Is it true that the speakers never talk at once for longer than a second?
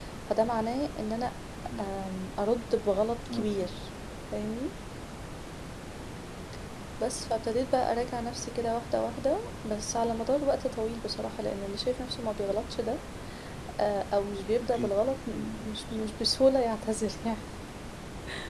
No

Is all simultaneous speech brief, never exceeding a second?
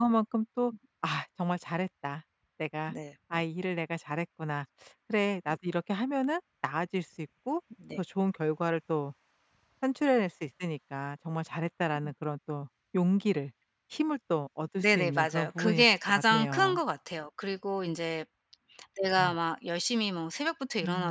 No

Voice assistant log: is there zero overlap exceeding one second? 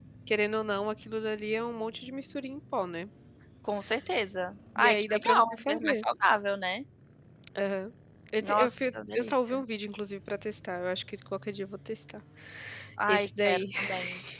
No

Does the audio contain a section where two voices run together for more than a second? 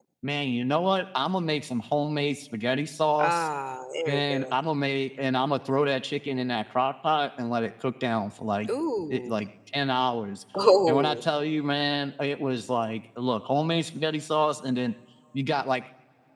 No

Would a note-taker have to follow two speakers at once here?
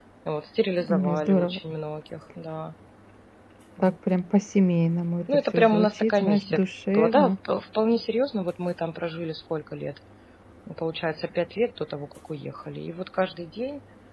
Yes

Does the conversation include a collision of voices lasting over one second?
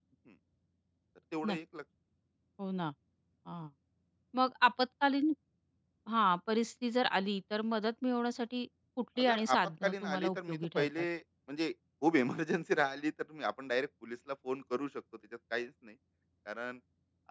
Yes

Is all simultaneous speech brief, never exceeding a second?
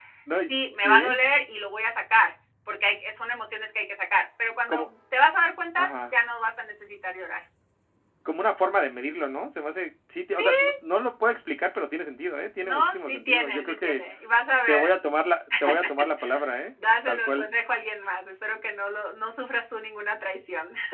No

